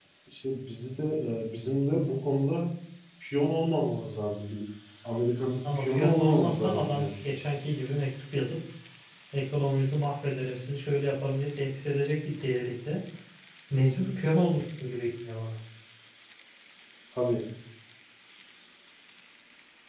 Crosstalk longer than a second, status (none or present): present